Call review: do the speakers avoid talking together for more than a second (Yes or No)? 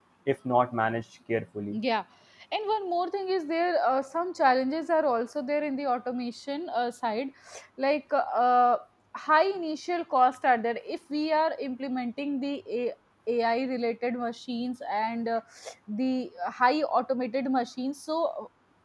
Yes